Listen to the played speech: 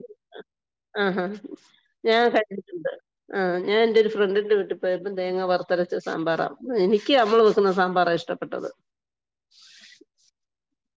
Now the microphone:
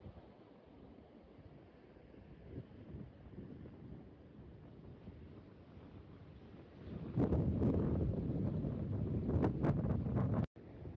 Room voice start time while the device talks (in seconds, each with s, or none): none